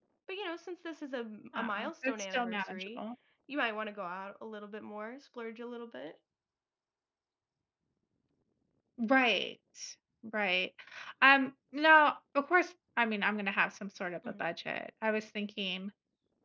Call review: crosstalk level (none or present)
present